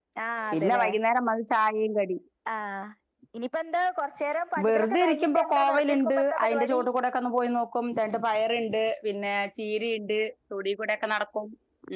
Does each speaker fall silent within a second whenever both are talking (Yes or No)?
No